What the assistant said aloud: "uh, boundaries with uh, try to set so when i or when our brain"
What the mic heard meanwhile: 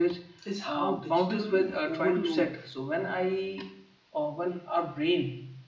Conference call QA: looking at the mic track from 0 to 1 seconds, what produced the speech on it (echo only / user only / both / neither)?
both